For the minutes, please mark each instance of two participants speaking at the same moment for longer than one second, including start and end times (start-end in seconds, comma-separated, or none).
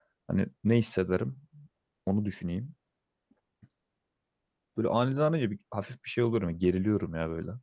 none